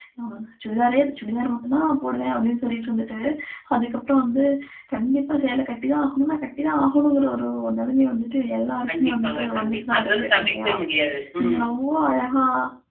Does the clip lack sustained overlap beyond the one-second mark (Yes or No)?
No